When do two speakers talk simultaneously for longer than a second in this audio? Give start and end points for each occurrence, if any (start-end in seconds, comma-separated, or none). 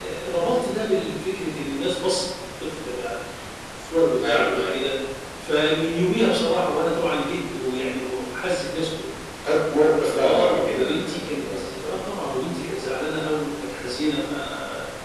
10.2-11.7